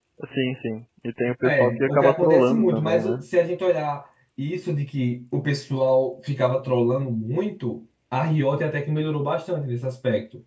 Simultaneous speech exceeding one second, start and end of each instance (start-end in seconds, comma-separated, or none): 1.4-3.2